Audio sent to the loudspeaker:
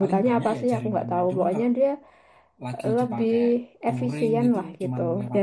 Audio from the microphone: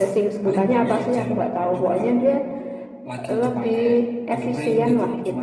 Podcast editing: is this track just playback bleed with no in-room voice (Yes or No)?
Yes